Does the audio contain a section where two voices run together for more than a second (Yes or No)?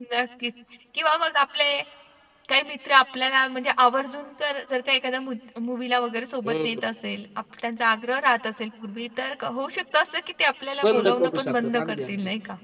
Yes